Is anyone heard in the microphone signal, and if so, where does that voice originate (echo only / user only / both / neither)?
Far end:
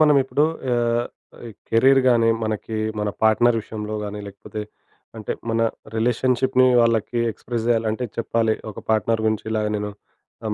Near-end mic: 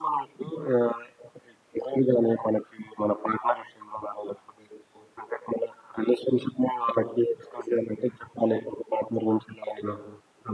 echo only